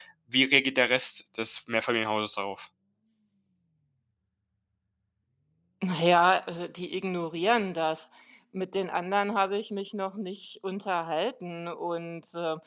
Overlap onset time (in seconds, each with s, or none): none